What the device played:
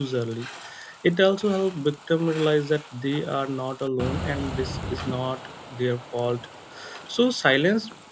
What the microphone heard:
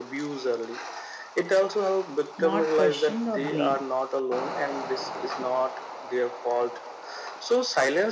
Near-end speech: present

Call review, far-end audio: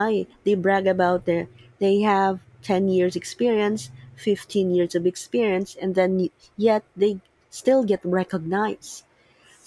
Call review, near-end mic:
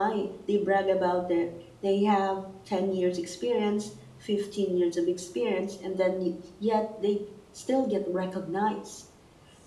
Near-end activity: none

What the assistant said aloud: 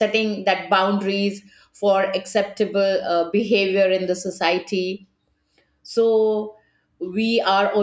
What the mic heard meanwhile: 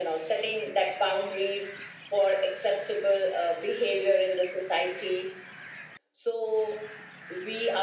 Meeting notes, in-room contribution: none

